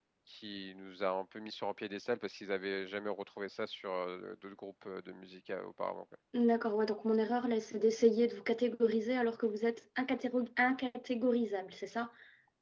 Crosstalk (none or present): none